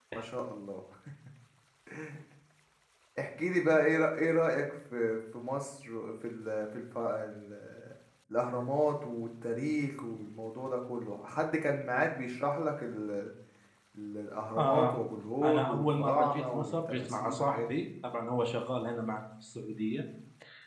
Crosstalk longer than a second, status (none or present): present